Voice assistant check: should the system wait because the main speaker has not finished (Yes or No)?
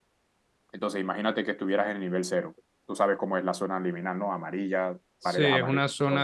No